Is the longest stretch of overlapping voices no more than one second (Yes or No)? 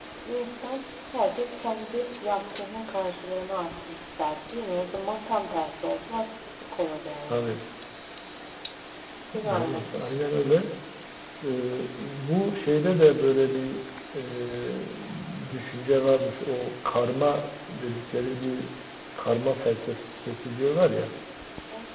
Yes